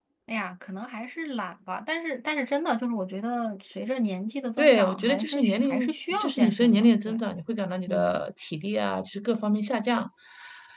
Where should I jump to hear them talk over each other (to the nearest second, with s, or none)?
5 s